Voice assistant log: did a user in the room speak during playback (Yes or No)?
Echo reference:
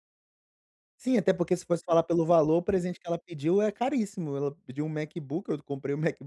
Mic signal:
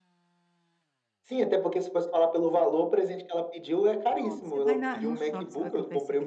Yes